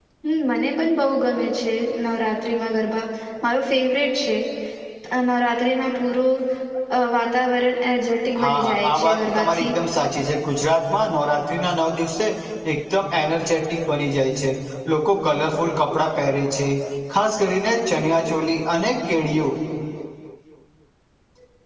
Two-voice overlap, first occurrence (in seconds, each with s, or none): 8.3 s